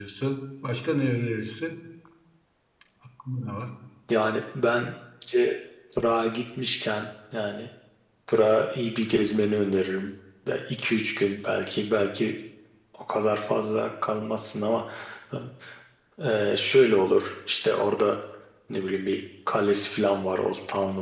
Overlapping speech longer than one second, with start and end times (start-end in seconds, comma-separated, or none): none